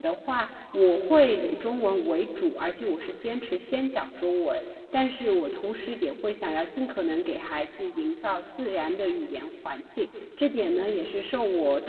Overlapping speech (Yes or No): No